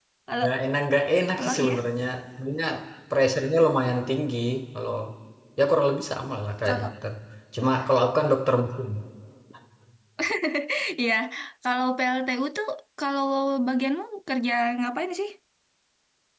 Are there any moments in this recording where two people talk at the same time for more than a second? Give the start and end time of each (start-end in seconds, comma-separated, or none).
none